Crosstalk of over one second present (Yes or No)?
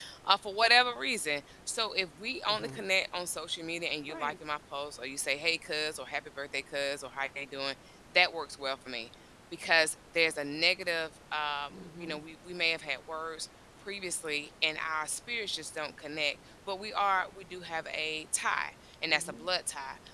No